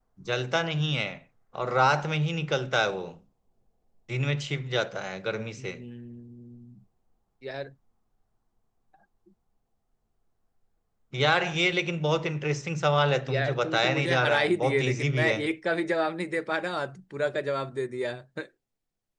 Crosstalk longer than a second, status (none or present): present